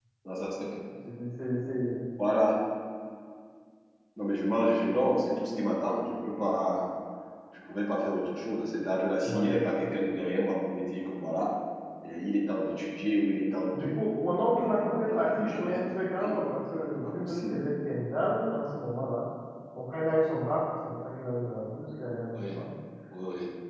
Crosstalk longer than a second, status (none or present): present